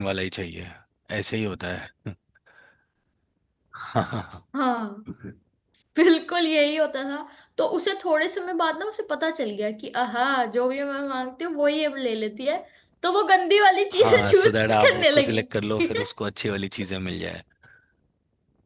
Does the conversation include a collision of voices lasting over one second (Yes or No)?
Yes